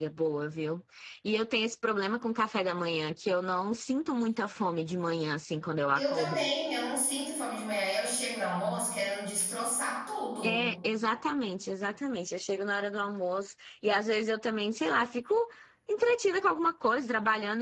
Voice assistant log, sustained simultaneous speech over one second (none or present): none